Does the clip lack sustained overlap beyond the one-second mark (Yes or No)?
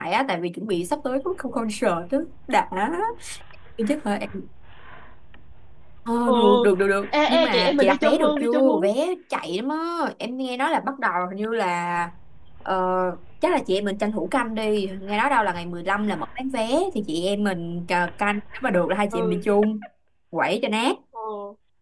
No